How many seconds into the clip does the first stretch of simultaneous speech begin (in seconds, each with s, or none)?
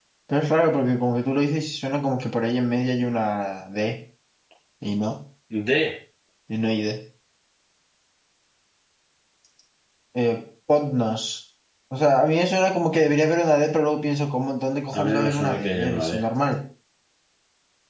14.9 s